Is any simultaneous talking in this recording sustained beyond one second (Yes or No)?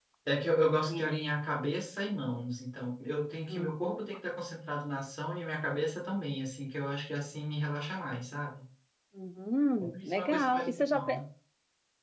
Yes